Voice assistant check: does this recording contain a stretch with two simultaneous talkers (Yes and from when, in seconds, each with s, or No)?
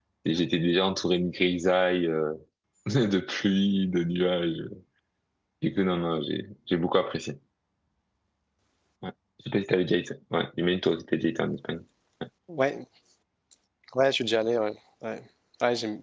No